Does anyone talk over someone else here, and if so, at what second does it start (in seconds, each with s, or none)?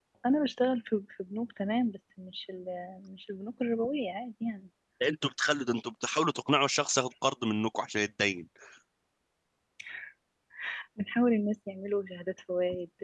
none